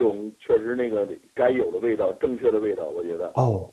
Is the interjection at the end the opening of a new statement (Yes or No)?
Yes